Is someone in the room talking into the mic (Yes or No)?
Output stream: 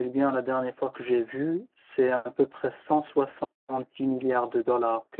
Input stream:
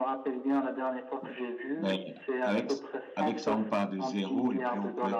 Yes